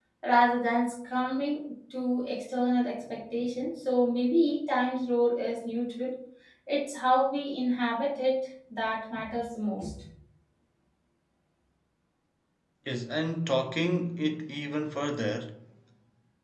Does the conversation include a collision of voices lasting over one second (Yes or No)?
No